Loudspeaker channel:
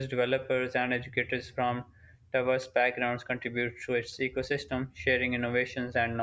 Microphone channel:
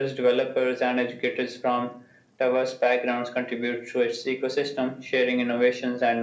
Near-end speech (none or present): none